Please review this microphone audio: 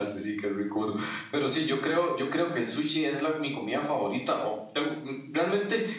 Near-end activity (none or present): none